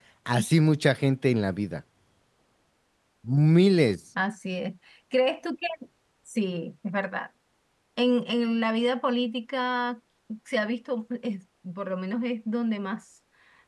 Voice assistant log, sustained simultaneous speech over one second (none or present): none